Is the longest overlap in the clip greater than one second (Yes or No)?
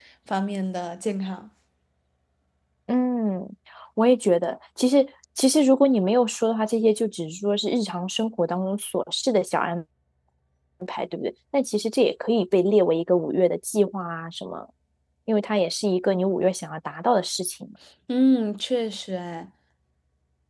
No